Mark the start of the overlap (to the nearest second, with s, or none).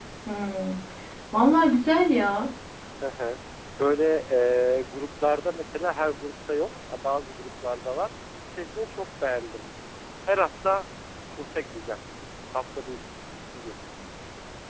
none